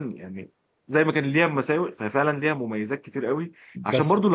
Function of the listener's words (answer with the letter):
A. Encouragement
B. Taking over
A